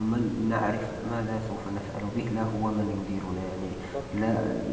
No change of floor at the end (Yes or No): Yes